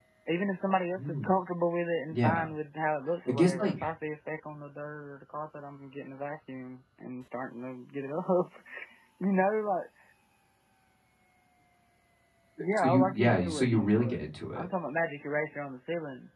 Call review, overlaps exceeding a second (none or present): present